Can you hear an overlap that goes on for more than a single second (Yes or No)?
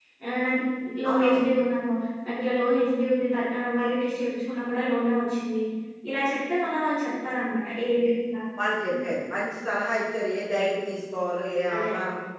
No